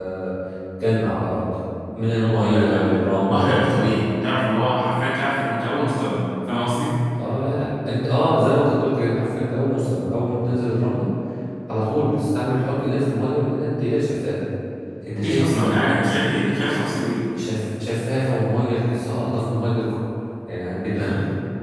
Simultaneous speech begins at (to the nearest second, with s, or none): 2 s